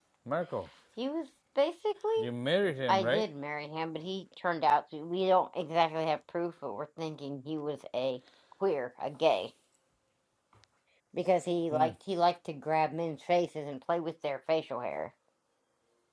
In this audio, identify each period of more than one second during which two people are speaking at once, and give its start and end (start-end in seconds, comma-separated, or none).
none